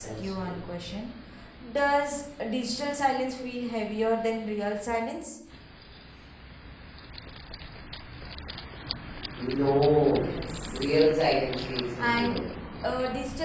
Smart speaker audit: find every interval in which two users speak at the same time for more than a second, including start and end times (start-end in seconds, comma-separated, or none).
none